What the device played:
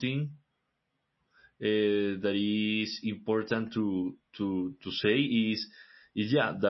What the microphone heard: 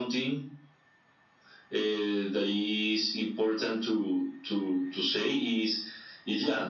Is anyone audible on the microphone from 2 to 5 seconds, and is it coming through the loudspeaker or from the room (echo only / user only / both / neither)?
echo only